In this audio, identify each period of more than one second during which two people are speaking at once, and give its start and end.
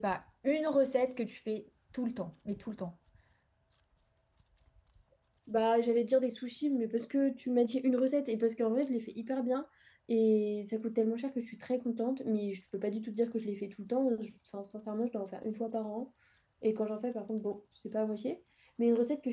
none

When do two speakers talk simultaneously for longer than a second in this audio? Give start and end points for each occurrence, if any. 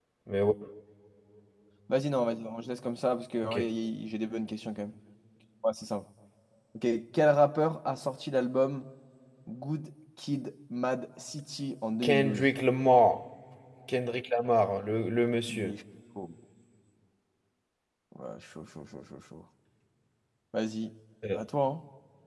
none

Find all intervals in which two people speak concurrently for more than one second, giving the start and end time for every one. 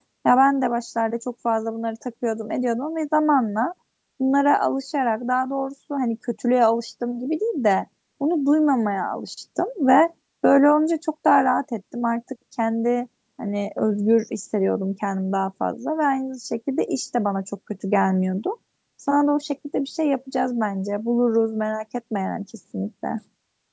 none

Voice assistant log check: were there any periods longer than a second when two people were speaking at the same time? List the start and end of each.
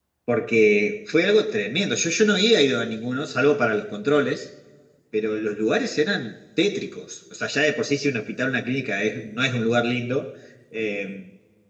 none

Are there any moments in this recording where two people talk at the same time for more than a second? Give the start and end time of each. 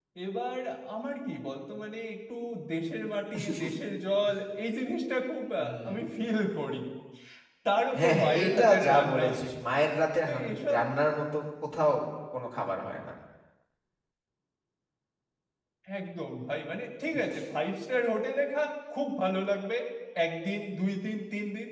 8.0-9.2

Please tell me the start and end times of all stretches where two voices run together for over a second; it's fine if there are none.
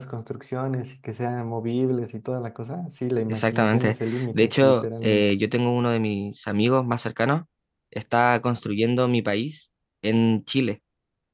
3.3-5.2

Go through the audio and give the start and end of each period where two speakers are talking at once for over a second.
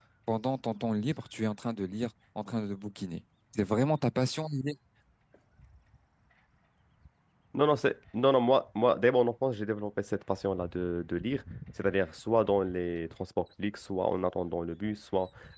none

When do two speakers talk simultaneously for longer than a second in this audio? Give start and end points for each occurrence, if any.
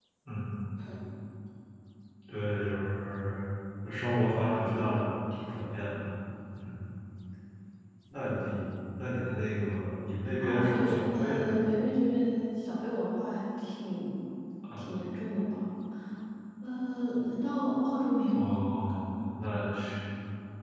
10.4-11.6

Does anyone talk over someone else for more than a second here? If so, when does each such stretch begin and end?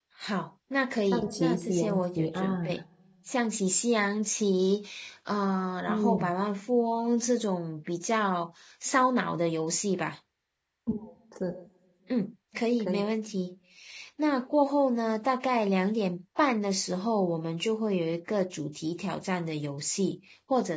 1.1-2.8

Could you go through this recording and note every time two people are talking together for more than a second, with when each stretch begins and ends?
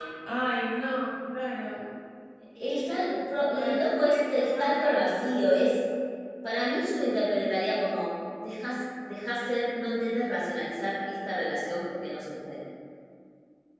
3.5-5.2

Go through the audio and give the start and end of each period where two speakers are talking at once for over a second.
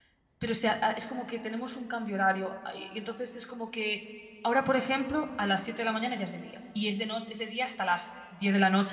none

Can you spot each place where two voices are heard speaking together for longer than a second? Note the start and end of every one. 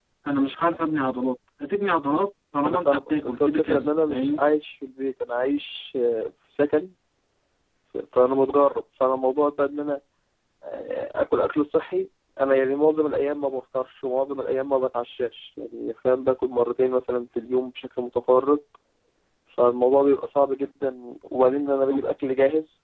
2.6-4.4

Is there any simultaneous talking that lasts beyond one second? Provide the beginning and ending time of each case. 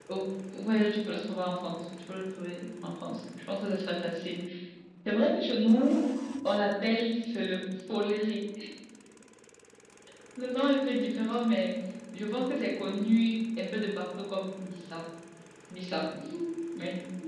none

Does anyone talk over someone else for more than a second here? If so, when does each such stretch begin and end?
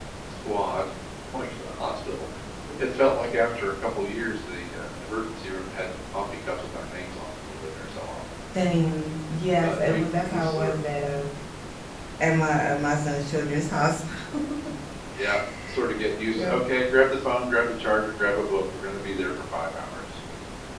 9.6-10.8

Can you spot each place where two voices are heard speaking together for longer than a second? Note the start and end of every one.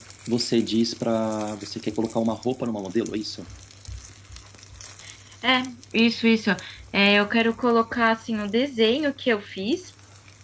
none

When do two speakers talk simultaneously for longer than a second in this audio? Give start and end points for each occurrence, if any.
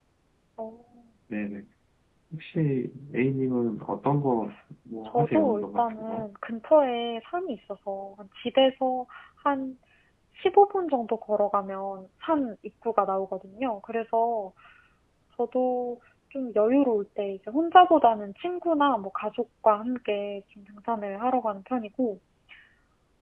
5.0-6.2

